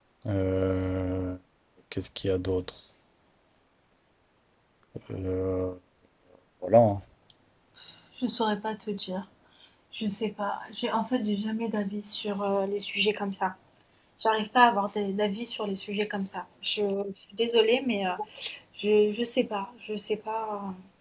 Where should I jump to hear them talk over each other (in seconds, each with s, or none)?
none